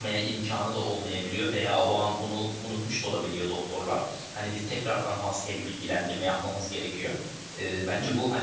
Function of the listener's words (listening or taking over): listening